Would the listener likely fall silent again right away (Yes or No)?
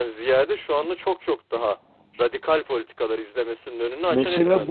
No